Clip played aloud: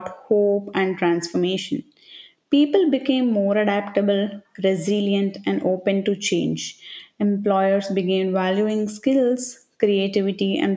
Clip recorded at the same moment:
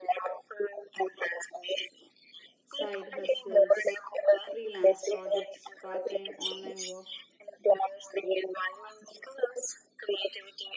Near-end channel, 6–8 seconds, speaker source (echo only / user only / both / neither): both